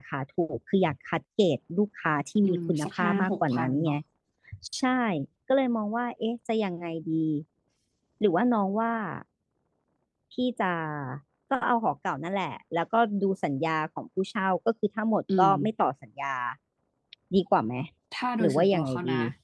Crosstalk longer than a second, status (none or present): present